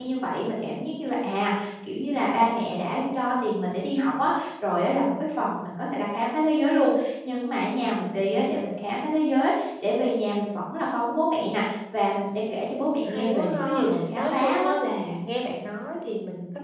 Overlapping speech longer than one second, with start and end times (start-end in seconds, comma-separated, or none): 13.1-14.7